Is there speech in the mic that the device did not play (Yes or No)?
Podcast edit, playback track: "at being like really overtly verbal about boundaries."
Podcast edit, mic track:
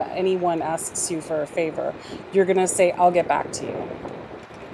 Yes